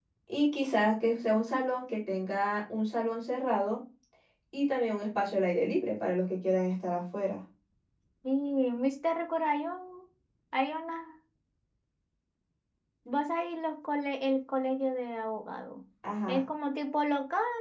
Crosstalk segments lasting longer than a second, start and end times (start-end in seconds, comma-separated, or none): none